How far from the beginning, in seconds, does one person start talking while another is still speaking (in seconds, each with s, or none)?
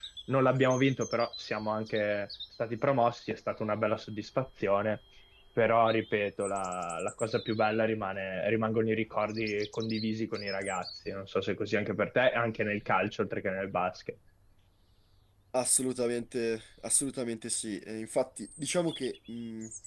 none